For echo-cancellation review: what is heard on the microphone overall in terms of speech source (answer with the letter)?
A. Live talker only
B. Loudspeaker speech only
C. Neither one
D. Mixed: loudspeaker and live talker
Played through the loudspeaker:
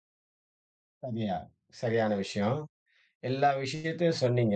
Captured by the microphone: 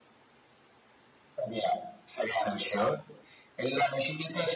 B